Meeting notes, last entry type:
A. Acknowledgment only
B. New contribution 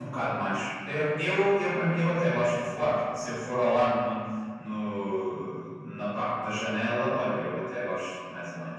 B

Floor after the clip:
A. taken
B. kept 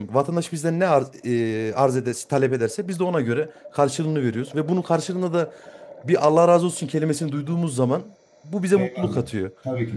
A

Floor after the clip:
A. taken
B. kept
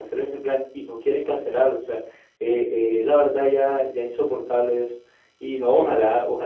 B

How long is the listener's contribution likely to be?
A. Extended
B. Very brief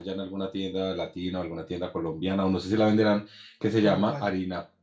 B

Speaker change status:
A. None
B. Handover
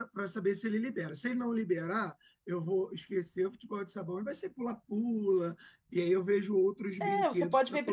B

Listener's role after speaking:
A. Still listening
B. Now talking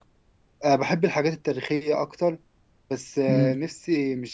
A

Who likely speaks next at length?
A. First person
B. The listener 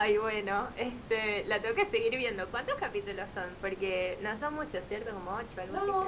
B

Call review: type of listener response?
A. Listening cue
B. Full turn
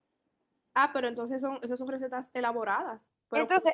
B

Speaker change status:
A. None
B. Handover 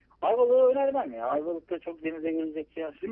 B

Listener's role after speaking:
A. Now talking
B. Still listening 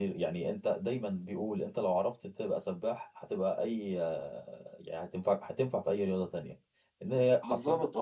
B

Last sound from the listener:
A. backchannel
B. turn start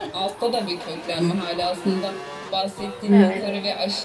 A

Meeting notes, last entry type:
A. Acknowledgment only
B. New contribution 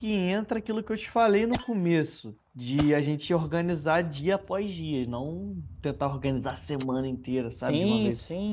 B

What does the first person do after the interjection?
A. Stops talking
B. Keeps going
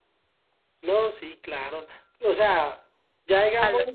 B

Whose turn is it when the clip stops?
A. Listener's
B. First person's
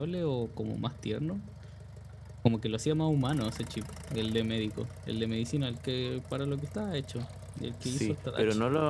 A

